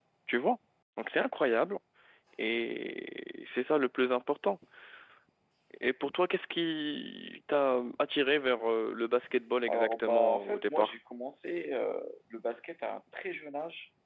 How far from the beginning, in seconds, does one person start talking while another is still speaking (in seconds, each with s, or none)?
9.7 s